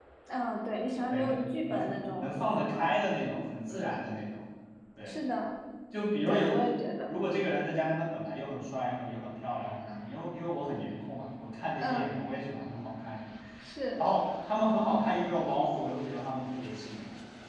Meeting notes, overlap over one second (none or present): present